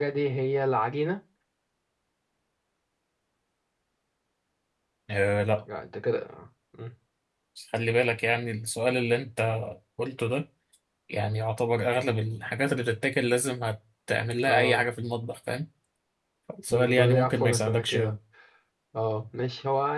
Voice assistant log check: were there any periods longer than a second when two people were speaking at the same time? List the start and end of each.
16.7-18.1

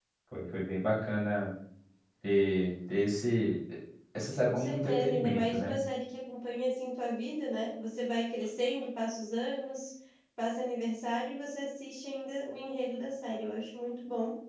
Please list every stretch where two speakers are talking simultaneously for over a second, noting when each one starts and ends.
4.4-5.8

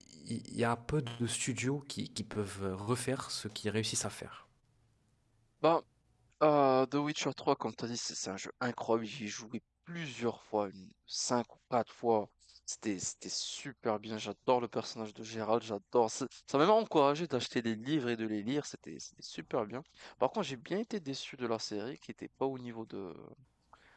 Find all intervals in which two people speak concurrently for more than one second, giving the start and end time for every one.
none

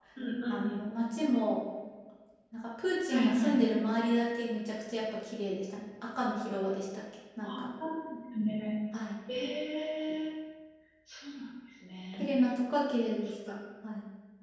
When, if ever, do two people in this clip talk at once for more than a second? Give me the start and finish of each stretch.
none

